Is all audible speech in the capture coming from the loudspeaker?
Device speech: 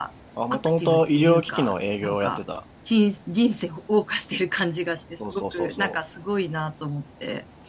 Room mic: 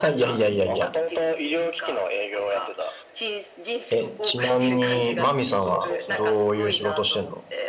No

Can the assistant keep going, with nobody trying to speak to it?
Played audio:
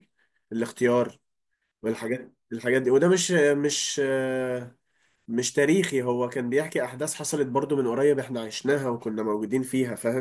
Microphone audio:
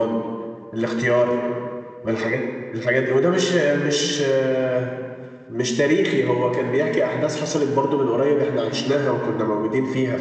Yes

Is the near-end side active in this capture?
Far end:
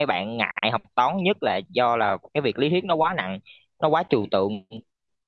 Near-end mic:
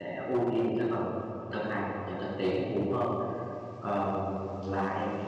Yes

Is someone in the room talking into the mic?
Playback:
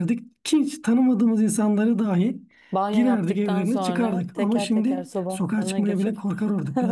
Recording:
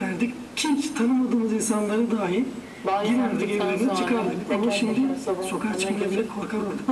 Yes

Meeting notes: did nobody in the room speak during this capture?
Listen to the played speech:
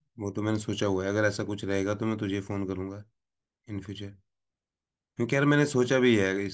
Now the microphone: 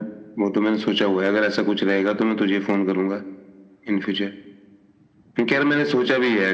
Yes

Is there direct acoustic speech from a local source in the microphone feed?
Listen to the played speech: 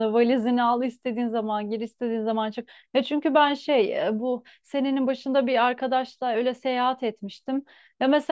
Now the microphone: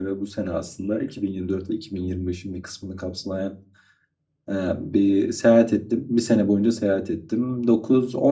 Yes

